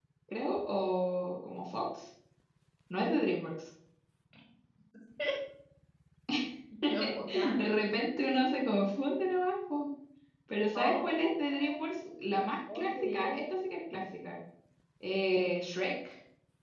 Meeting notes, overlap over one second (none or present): present